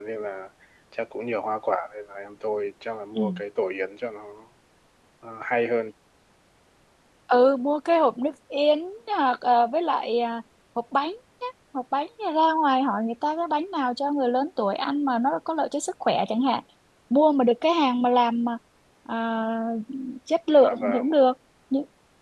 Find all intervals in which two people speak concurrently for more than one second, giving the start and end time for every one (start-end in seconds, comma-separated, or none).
none